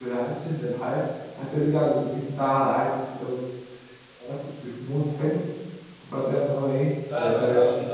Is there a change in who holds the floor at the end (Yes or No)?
Yes